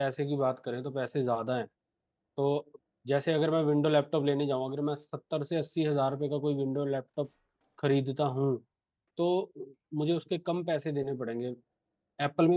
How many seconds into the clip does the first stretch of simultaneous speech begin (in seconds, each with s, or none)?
none